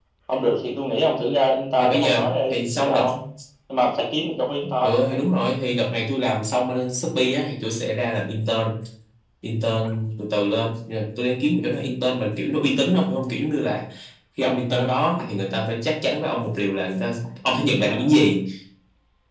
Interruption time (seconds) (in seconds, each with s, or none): 1.8 s